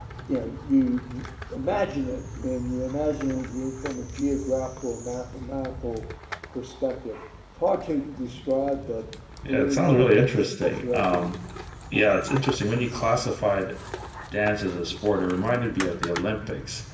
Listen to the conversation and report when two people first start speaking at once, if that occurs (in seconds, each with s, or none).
9.5 s